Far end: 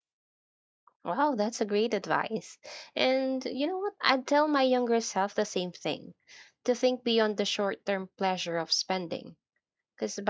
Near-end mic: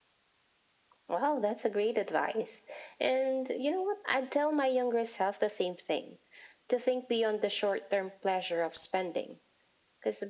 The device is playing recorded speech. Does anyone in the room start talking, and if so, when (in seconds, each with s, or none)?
none